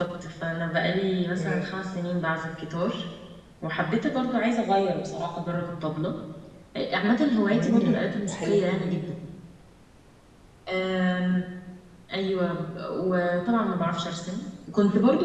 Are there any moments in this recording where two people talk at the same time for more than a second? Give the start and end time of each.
7.5-8.9

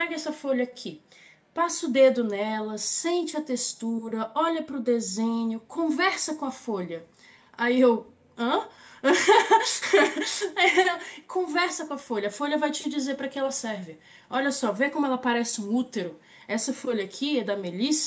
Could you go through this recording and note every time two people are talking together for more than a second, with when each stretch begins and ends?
none

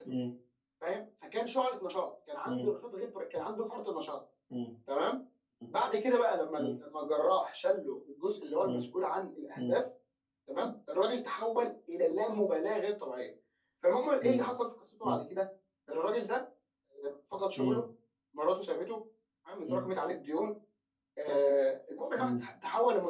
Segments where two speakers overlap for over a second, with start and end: none

